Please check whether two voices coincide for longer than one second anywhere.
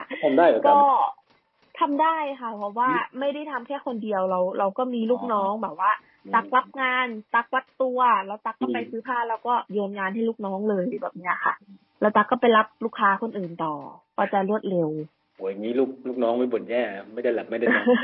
No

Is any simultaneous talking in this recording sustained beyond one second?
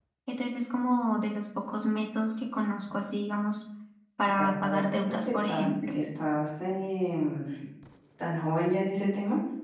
Yes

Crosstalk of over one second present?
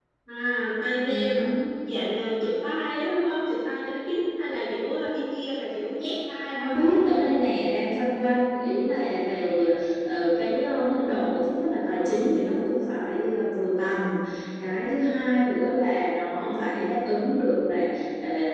No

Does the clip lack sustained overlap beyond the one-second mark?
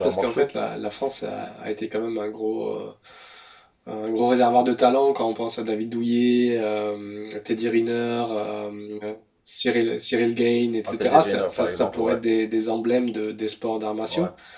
No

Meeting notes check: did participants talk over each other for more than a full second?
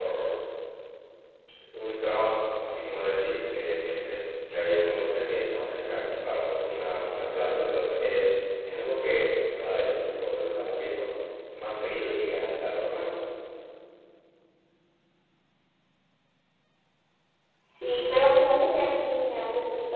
No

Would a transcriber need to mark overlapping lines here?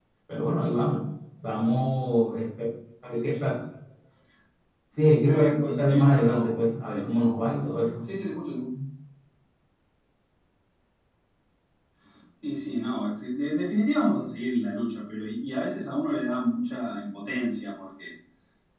Yes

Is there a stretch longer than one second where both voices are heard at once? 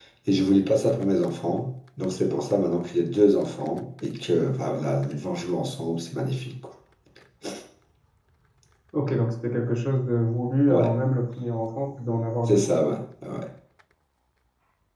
No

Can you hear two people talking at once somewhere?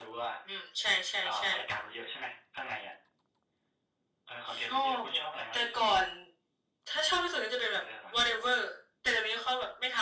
Yes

